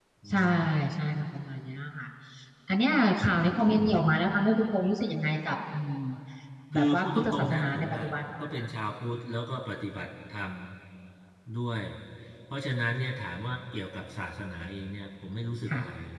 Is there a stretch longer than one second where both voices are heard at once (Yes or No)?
Yes